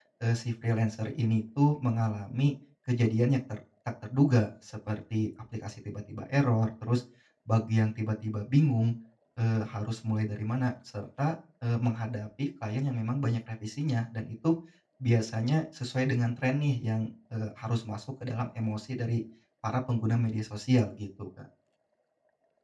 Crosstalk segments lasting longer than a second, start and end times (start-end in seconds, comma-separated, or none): none